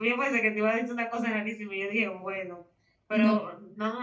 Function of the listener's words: listening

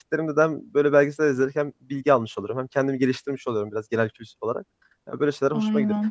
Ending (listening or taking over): listening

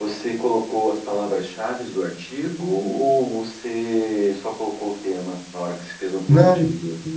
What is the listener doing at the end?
taking over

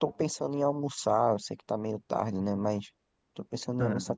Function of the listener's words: listening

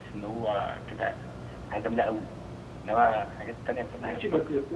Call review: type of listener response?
taking over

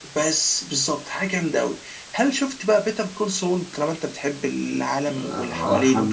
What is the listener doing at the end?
taking over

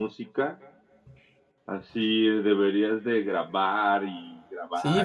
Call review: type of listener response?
taking over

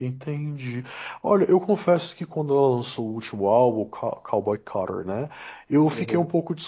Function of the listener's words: listening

